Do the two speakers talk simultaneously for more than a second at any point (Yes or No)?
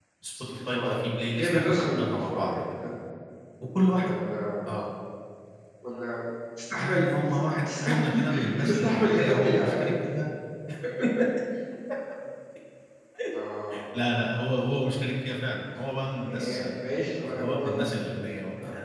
Yes